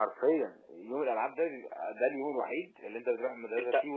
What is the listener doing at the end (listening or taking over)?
taking over